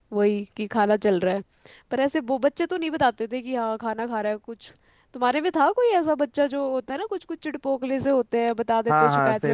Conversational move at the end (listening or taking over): taking over